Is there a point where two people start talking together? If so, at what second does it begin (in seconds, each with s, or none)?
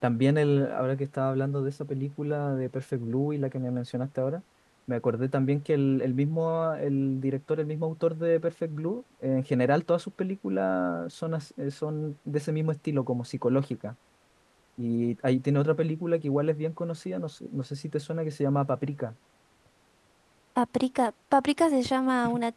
none